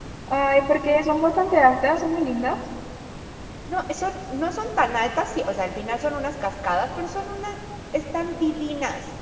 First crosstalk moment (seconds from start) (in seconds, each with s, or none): none